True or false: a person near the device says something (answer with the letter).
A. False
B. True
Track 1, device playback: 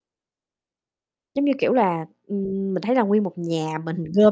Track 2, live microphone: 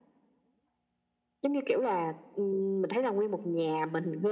A